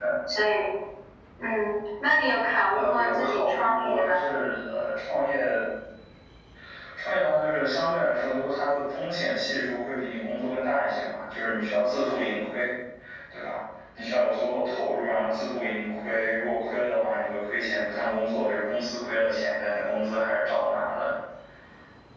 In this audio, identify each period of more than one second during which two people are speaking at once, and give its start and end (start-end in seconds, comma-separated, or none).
2.7-4.2